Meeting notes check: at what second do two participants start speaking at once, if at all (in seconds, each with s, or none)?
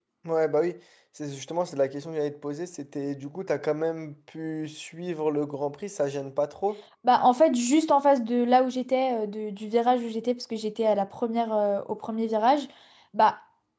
none